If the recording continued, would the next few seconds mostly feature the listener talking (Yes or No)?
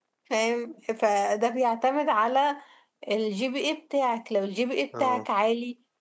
No